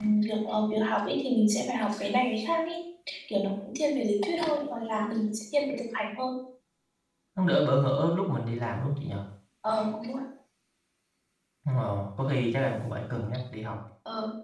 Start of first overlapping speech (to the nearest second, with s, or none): none